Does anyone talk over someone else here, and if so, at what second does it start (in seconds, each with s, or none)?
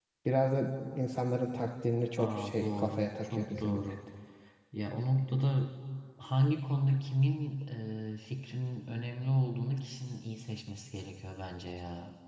2.2 s